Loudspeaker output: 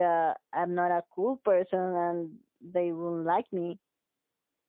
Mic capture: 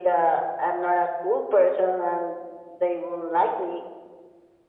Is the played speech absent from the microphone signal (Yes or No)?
No